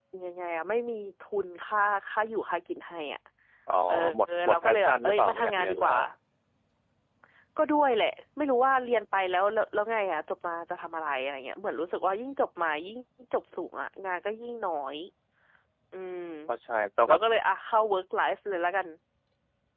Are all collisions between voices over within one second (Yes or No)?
No